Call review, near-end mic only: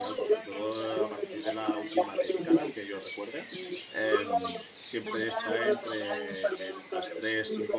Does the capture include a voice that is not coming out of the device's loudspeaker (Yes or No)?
Yes